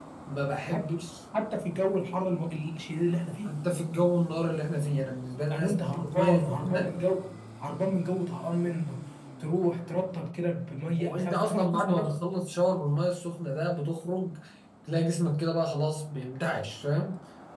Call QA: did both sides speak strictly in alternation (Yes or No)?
No